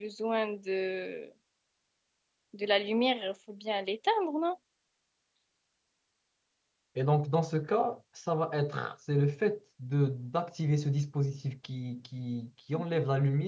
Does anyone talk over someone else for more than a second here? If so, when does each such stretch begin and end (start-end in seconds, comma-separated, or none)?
none